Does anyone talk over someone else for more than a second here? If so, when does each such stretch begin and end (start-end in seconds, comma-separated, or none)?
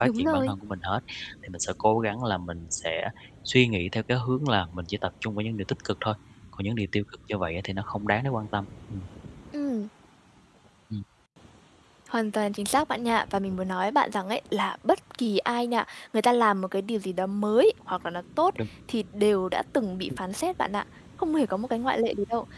none